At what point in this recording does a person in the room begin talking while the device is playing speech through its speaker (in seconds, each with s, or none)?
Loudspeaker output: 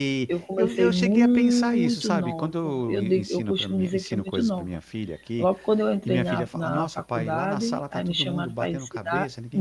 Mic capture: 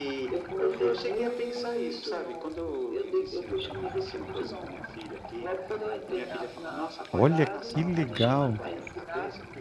7.1 s